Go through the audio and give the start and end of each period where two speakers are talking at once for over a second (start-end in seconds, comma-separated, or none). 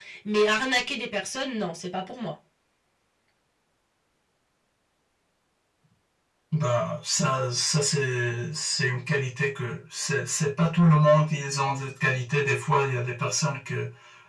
none